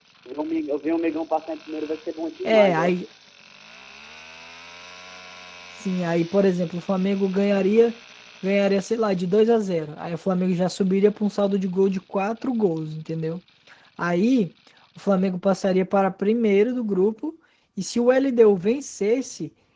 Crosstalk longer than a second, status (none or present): none